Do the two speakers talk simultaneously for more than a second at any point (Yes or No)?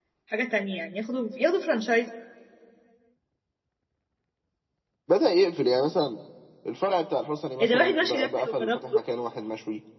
Yes